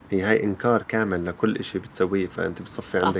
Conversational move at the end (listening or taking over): taking over